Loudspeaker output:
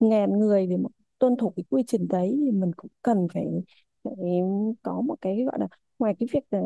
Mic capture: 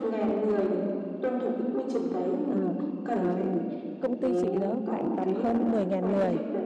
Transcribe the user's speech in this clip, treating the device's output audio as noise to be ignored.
À, à, công ty chị nó khoảng tầm hơn mười 000 người

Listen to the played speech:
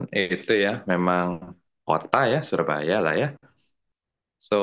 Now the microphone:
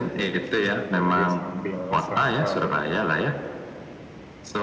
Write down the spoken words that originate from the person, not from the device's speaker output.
bisa didengerin sambil santai gitu.

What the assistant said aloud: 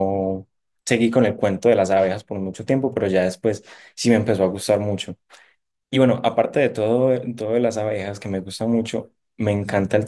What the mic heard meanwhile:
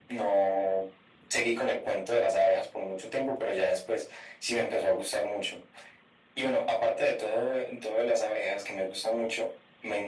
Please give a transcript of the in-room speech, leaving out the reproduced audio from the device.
none

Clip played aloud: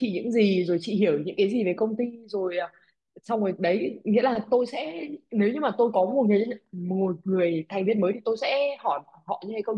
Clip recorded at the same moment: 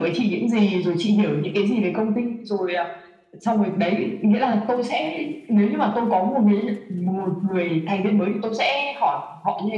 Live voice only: none

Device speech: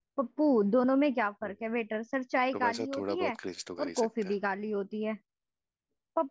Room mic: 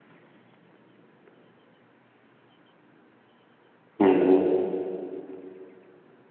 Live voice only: हम्म हम्म।

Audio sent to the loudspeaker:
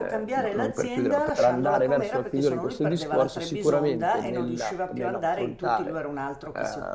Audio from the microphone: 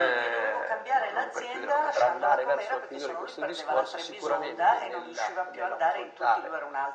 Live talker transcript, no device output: none

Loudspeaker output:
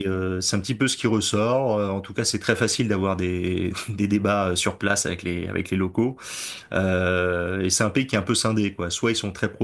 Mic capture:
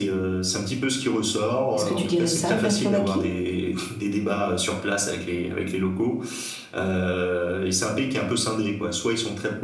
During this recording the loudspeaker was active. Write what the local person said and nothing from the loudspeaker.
Est-ce que tu dirais ça de la Slovaquie?

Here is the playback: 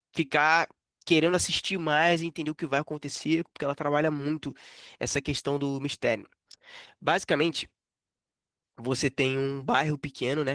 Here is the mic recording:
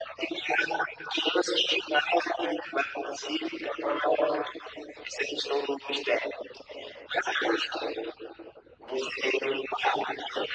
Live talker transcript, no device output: none

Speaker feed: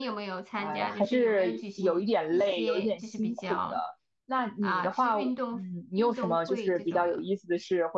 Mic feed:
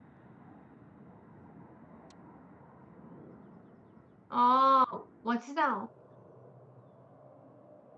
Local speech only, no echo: 哦，我知道。我。

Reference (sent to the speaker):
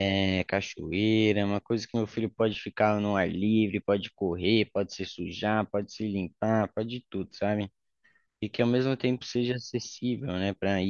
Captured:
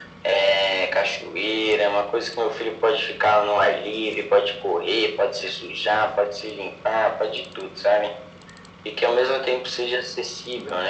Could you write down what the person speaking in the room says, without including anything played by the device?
none

